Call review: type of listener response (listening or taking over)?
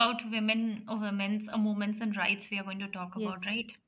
taking over